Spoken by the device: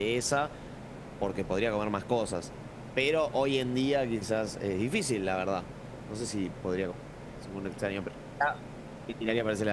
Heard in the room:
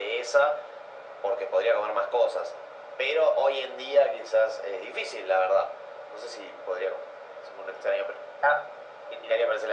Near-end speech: none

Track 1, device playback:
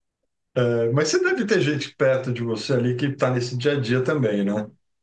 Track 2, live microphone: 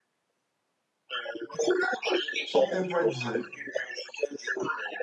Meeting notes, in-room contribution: present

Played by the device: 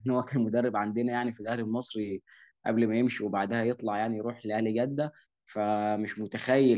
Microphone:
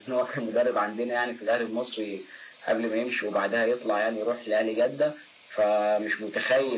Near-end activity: none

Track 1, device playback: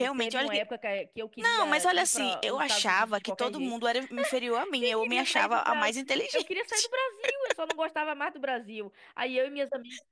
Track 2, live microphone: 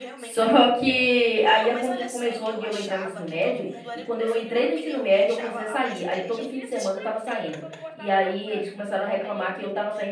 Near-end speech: present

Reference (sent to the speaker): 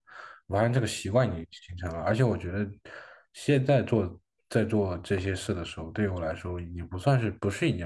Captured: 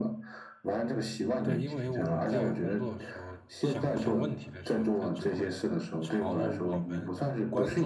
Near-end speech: present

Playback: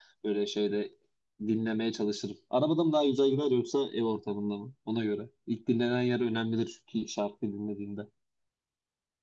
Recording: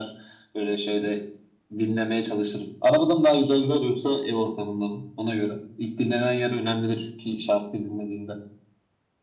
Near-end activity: none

